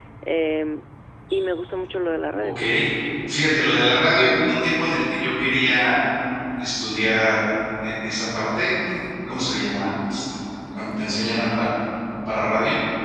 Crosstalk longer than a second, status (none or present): none